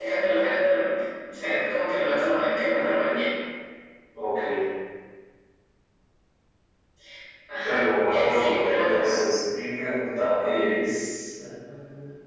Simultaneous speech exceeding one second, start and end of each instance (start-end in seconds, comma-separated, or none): 7.6-9.1